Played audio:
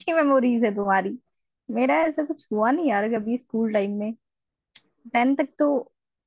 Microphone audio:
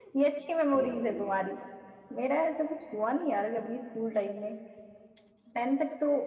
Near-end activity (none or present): present